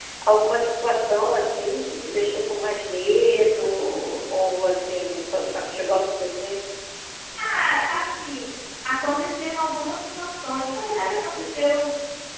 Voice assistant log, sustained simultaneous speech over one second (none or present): none